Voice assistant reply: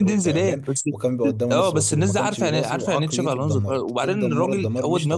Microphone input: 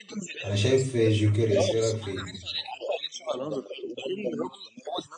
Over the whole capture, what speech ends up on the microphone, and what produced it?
both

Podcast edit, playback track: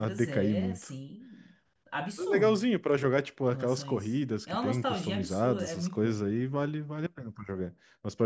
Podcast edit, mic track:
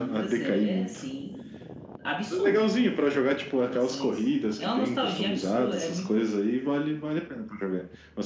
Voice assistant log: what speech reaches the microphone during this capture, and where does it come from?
echo only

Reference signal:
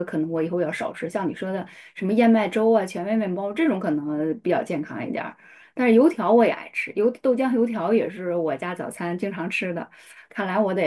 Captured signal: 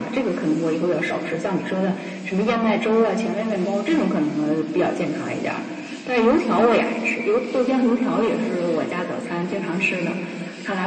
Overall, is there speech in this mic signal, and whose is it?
echo only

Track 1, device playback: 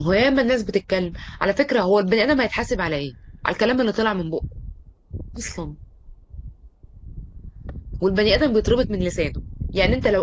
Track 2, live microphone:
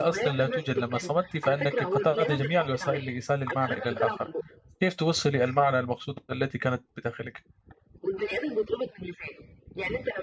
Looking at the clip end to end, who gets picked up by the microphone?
both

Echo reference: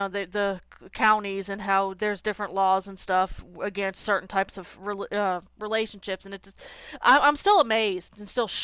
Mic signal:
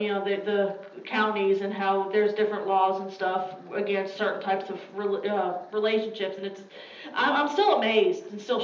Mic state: echo only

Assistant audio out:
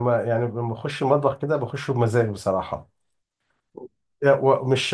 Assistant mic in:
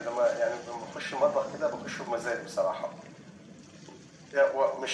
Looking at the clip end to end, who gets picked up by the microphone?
echo only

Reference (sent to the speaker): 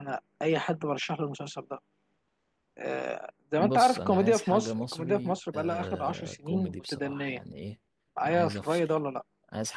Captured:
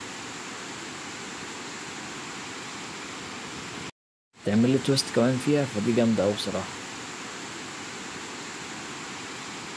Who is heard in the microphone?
user only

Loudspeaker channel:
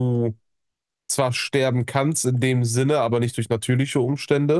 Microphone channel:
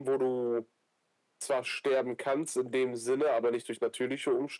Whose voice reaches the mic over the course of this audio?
echo only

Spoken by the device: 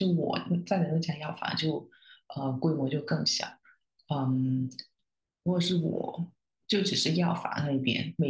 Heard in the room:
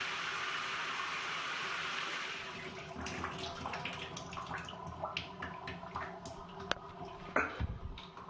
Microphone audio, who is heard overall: neither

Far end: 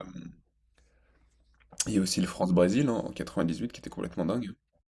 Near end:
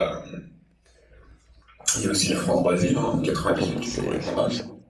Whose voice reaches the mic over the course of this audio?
both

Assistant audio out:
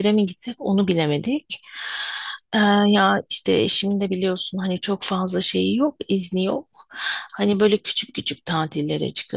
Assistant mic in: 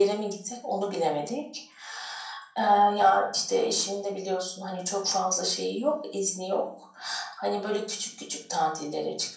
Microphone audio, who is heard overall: echo only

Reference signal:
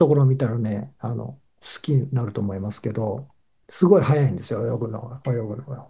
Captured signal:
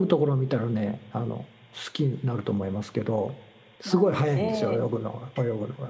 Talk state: both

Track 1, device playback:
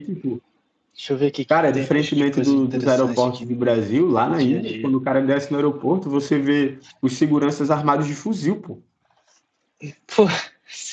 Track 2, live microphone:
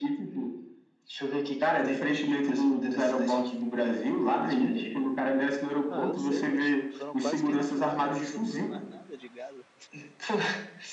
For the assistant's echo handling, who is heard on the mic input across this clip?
both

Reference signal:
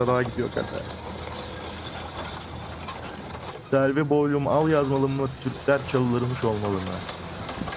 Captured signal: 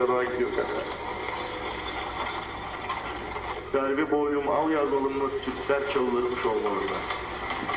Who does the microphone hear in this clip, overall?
echo only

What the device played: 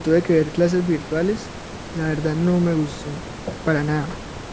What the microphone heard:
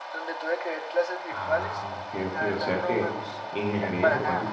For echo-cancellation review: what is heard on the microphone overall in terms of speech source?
both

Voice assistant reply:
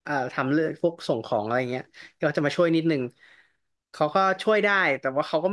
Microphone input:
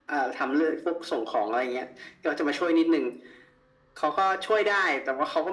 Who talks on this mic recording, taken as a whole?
echo only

